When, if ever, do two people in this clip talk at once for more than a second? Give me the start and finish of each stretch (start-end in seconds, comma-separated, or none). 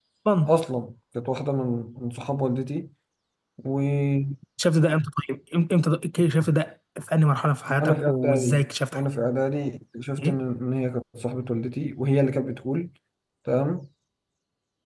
7.8-9.0